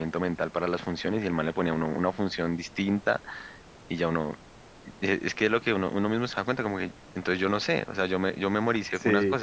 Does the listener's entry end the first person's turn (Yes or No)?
Yes